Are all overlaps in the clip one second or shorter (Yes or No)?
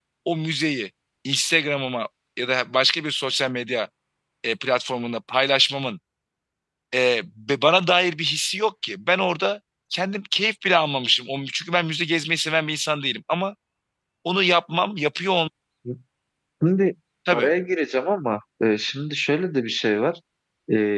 Yes